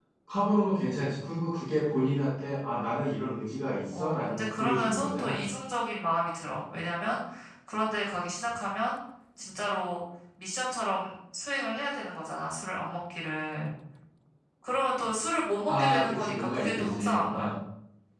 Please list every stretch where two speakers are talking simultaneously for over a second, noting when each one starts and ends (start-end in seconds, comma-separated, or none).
3.9-5.4, 15.7-17.5